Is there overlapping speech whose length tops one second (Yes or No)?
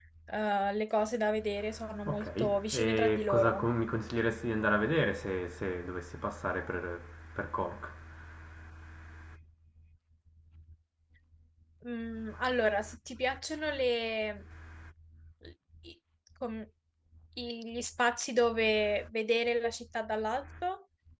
Yes